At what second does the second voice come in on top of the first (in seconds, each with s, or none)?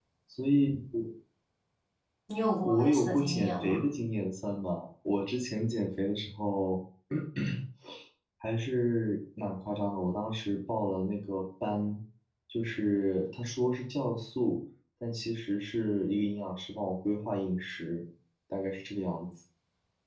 2.6 s